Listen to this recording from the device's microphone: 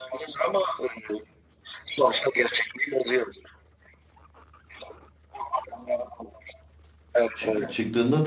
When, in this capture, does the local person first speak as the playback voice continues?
7.3 s

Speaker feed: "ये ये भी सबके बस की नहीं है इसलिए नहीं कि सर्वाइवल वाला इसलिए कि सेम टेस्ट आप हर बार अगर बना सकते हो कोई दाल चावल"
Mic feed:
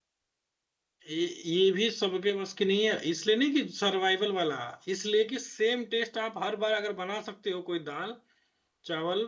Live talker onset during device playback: none

